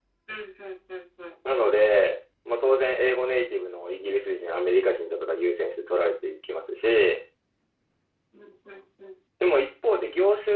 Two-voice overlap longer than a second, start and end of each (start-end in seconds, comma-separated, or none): none